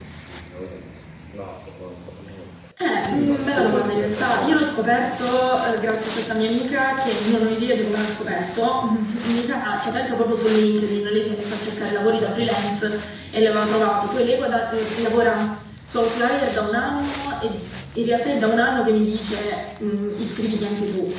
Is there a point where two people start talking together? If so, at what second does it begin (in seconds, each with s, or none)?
3.0 s